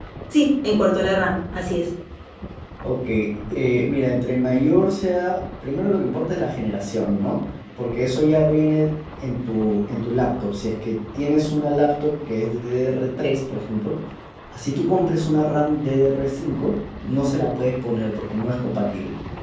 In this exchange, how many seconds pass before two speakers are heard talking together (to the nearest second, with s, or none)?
none